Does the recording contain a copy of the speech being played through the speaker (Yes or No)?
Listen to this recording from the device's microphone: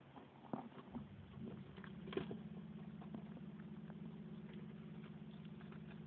No